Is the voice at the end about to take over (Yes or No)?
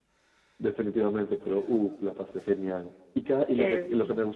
No